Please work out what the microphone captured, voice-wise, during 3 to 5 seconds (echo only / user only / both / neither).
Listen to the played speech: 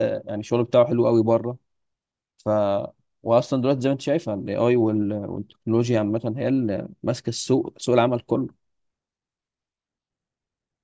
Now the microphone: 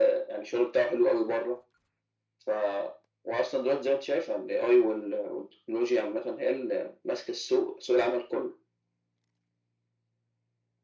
echo only